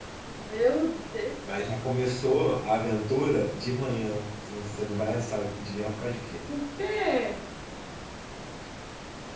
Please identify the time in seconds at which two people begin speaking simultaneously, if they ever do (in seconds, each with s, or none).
none